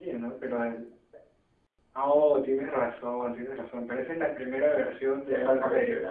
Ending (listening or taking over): taking over